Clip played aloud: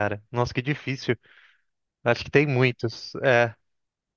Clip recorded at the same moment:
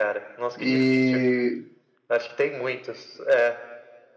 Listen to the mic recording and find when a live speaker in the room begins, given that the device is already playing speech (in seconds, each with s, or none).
0.6 s